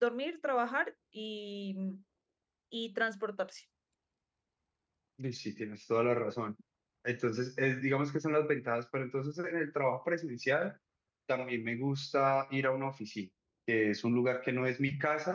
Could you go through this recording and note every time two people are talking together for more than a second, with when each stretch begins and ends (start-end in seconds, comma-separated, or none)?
none